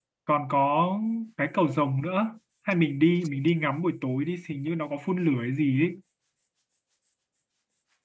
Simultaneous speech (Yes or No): No